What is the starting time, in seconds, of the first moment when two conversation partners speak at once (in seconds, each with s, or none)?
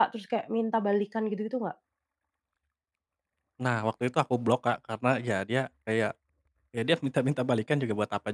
none